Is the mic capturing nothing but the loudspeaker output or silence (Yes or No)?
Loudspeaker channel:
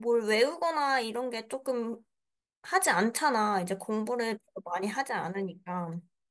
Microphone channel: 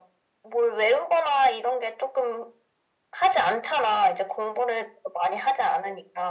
Yes